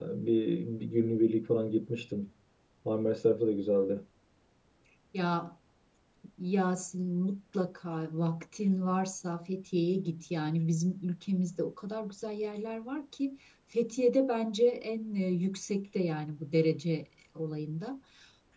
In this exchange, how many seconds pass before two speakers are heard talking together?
none

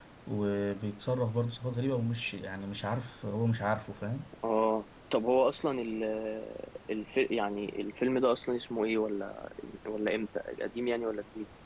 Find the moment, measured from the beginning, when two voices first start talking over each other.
none

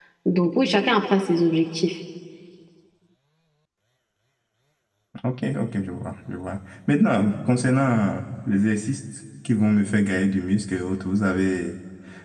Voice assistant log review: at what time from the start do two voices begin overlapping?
none

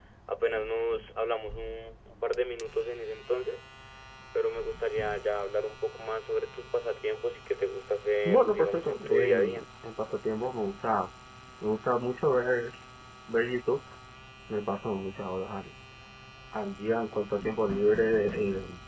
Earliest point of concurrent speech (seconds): 8.2 s

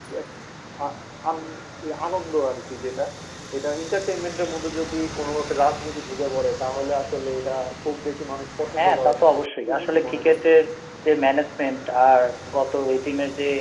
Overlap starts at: 8.8 s

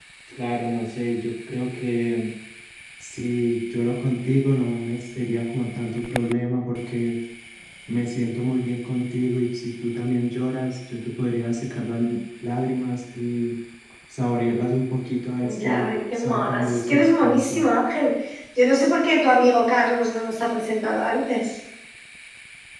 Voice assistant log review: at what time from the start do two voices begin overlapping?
15.4 s

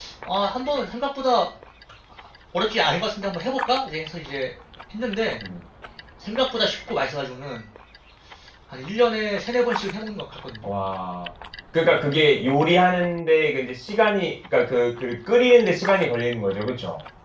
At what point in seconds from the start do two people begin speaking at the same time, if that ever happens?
none

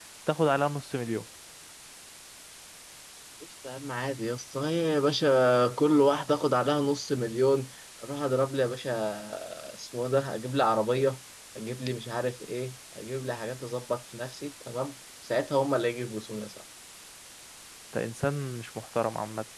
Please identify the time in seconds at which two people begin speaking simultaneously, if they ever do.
none

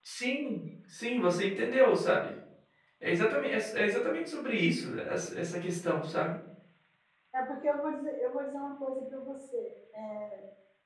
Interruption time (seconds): none

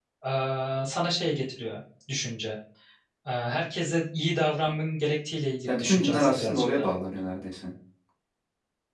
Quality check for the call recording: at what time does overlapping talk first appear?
5.7 s

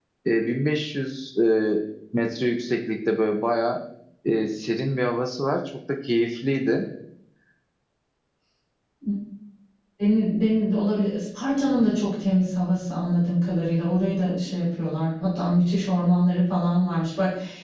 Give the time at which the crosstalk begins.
none

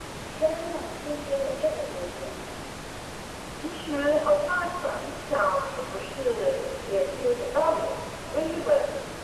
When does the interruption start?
none

